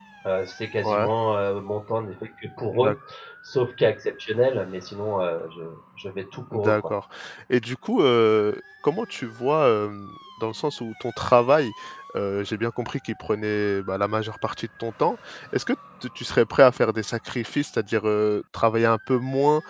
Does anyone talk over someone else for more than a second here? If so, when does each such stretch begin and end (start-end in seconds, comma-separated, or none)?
none